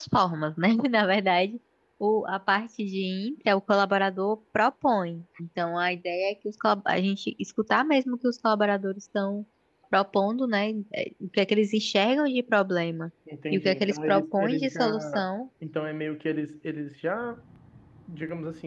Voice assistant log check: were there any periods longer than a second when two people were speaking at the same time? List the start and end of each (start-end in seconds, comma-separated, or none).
13.5-15.3